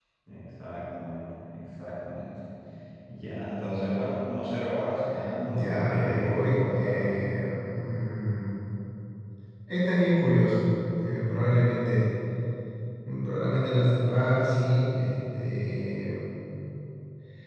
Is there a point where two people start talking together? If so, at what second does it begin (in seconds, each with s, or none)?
5.4 s